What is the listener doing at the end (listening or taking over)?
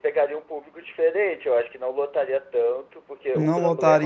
taking over